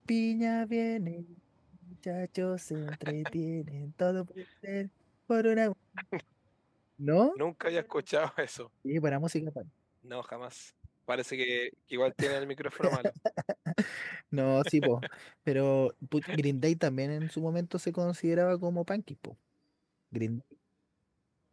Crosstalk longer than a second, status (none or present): none